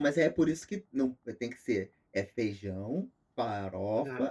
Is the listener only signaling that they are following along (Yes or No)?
Yes